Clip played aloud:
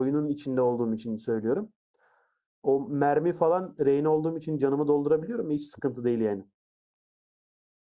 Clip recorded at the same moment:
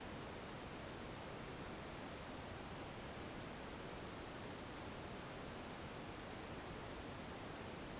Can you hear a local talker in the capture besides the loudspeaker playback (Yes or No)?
No